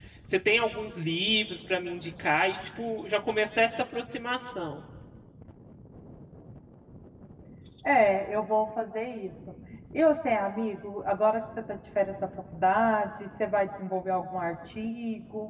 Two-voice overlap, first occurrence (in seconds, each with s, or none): none